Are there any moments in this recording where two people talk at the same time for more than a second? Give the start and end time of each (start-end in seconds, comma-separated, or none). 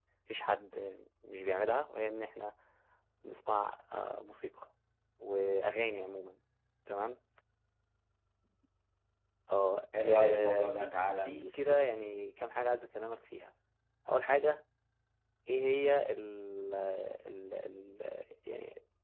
10.0-11.8